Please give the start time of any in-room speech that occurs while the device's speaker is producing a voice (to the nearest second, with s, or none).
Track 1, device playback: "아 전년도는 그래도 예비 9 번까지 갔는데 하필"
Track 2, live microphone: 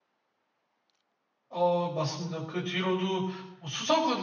1 s